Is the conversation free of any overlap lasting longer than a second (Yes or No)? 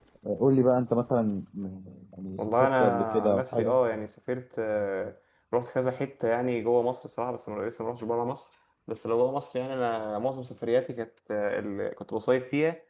No